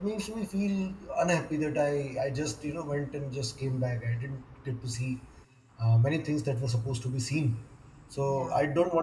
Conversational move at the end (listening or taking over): listening